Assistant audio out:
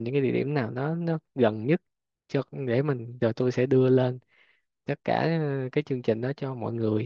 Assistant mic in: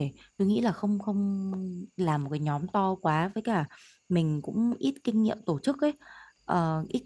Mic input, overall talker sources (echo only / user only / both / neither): user only